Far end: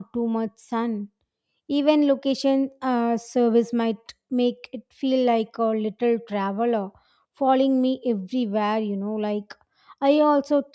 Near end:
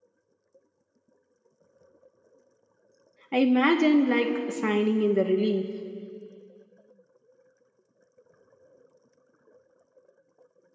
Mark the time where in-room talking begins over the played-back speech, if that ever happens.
3.3 s

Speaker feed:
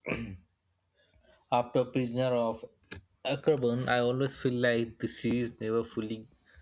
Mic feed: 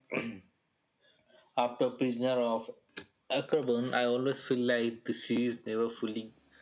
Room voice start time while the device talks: none

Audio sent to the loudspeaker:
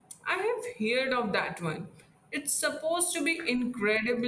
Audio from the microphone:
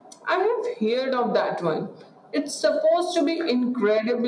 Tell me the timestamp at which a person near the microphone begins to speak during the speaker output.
none

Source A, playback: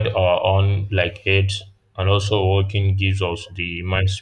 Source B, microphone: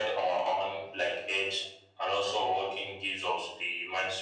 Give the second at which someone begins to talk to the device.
none

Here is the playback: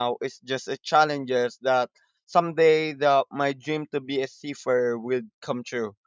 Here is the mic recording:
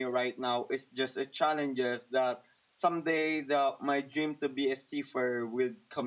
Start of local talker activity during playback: none

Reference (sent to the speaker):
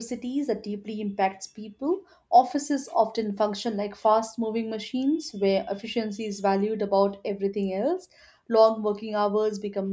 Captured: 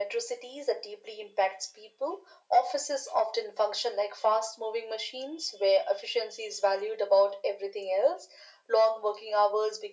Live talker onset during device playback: none

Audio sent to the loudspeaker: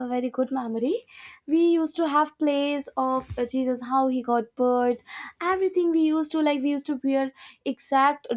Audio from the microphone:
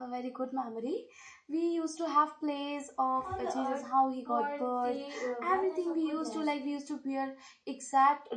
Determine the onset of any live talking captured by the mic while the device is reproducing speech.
3.2 s

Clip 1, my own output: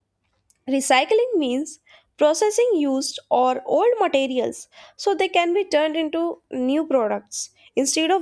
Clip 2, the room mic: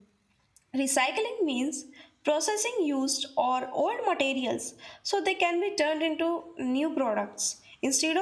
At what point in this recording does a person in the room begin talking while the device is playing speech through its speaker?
none

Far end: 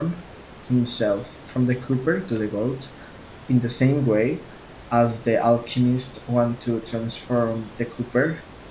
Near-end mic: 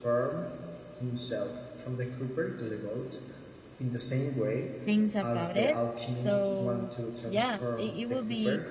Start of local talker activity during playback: 4.8 s

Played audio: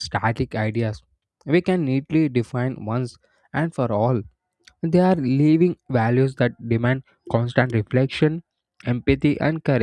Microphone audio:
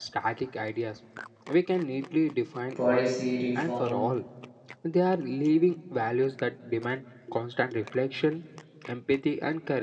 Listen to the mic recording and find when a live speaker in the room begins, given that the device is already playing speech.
2.8 s

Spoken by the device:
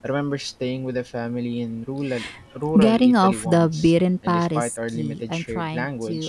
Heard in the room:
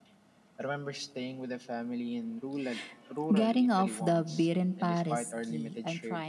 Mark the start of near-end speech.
none

